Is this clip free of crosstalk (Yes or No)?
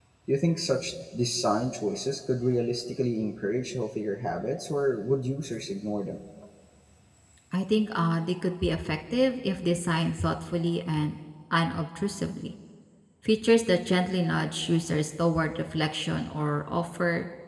Yes